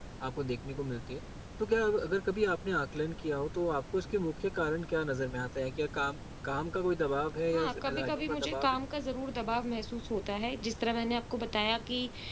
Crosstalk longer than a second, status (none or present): present